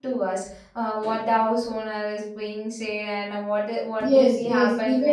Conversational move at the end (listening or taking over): taking over